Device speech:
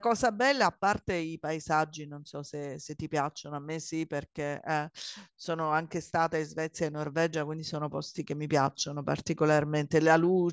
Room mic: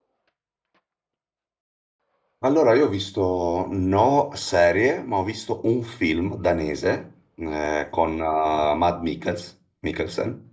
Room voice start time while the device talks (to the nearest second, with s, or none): 2 s